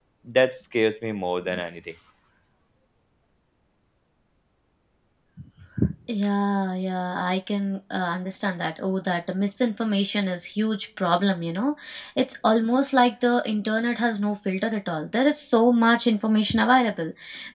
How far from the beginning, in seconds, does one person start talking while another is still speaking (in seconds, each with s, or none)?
none